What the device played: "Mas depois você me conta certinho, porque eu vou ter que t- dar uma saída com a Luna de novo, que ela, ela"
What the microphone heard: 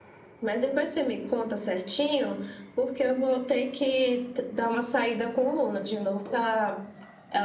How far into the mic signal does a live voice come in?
none

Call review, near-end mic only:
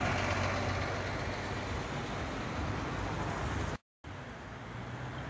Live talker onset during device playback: none

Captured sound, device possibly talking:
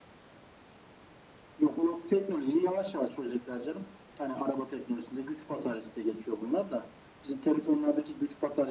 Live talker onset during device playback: none

